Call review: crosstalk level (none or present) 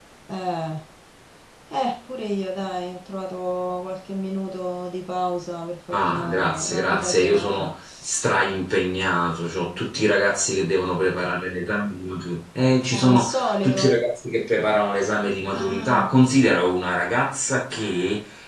present